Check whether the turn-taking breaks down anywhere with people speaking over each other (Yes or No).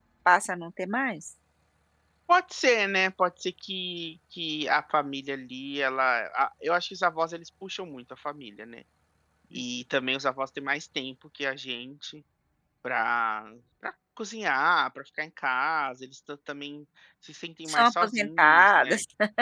Yes